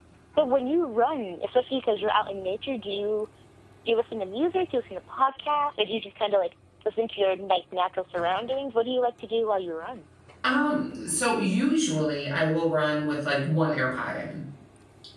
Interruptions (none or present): none